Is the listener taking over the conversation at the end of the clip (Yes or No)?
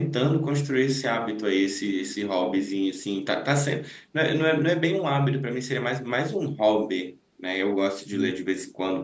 No